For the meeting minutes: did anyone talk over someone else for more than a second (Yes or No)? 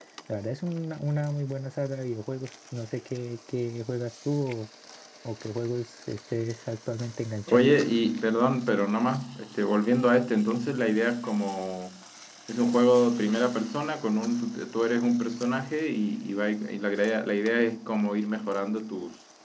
No